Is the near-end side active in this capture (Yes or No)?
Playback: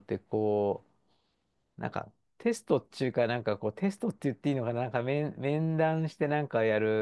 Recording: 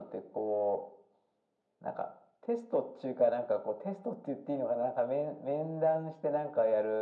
No